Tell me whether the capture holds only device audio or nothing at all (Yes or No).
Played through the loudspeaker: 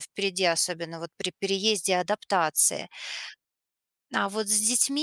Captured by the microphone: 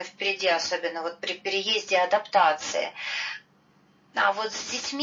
Yes